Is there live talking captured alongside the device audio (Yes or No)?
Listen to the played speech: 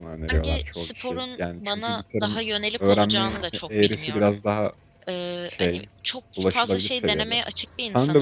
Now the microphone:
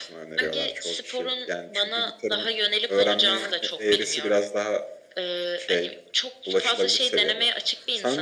No